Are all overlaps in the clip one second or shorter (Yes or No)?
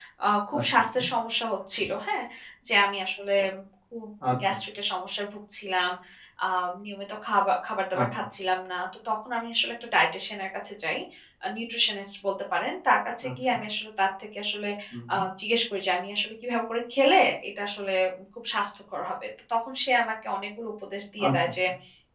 Yes